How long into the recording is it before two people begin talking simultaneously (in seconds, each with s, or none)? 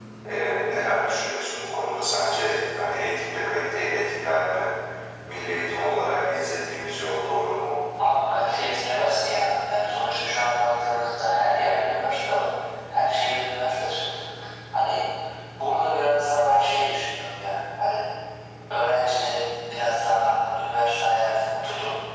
none